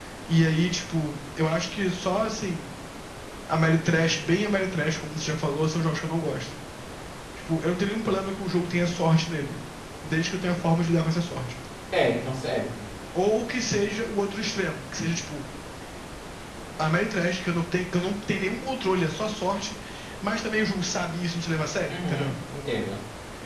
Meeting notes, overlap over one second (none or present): none